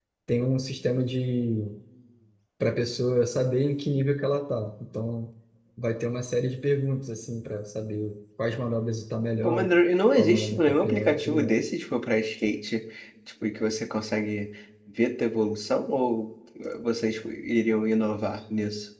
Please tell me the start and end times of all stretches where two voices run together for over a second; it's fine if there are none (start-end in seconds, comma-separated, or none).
10.2-11.5